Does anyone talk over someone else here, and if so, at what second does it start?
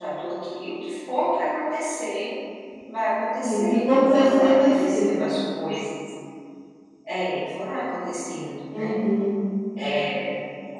3.4 s

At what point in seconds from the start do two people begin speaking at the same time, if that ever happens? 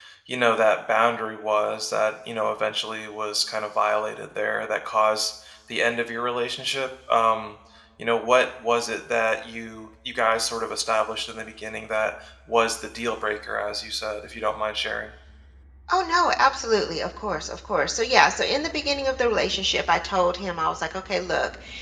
none

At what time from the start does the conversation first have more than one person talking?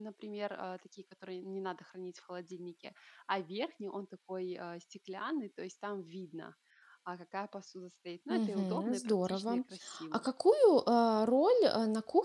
8.3 s

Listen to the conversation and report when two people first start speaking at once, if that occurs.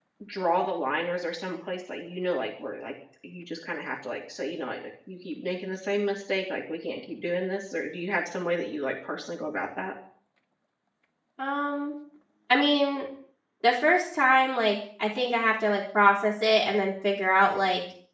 none

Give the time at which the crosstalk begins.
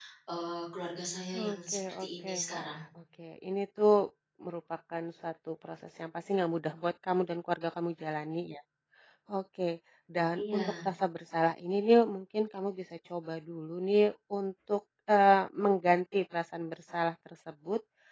1.4 s

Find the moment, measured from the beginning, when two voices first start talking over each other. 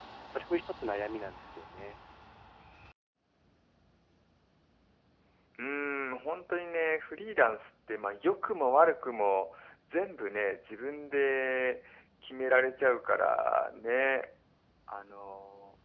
none

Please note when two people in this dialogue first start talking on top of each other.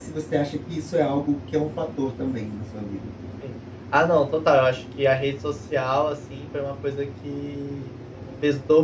none

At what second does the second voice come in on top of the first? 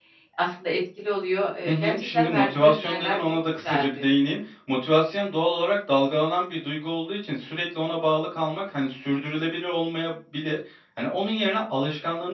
1.6 s

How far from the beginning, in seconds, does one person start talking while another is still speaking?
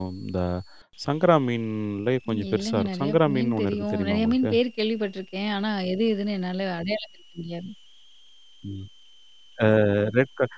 2.3 s

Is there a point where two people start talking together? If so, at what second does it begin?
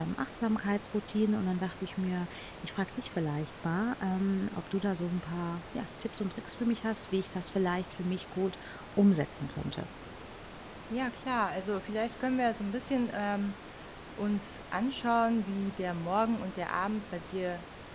none

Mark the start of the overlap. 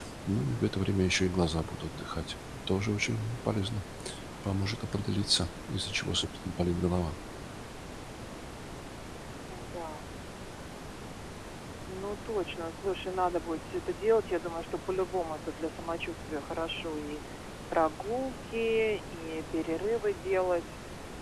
none

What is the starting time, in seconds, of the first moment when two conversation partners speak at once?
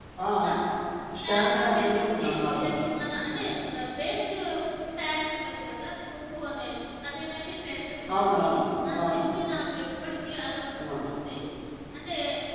1.2 s

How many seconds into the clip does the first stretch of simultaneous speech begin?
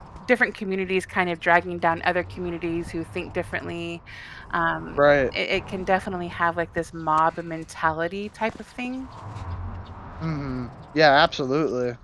none

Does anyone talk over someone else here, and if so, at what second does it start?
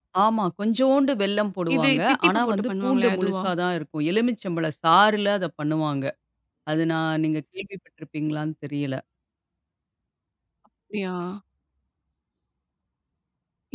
1.7 s

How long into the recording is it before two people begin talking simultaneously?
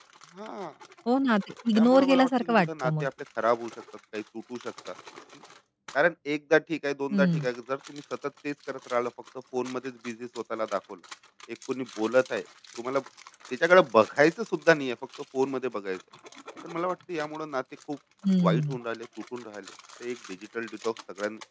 1.8 s

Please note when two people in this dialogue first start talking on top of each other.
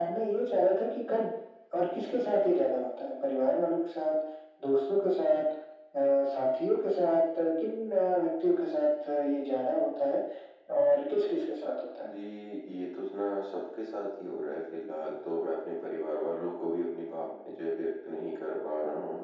none

